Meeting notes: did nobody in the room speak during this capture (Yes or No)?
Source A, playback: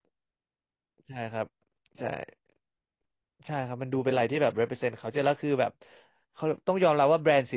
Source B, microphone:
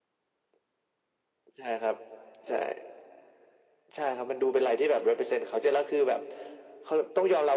Yes